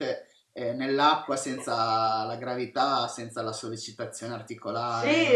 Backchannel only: No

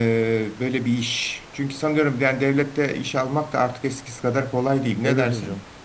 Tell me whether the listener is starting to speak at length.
Yes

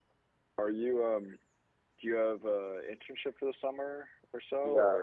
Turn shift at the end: Yes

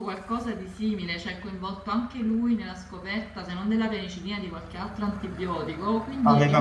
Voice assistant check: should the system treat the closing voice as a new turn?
Yes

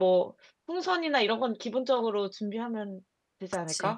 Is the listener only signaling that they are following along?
No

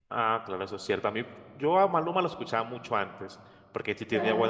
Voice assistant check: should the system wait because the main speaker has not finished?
Yes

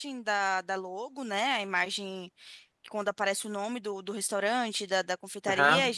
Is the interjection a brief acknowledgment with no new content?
Yes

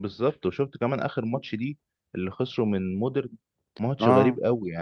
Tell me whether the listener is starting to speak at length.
No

